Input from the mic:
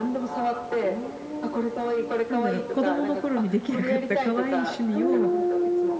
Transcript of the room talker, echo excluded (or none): なんだろう、子供の頃にできなかった可愛い趣味を、